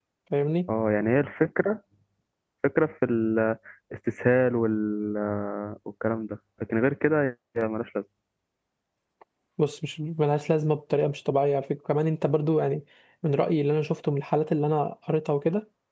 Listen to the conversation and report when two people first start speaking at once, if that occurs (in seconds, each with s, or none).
none